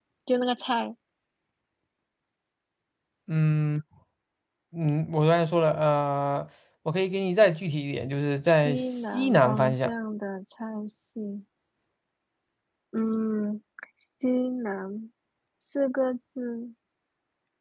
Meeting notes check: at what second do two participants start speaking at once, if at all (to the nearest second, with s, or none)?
9 s